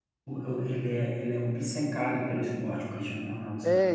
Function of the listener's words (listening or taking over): taking over